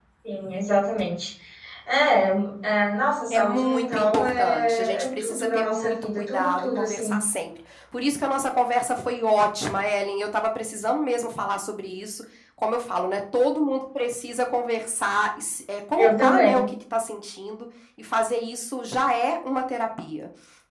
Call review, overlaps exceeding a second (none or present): present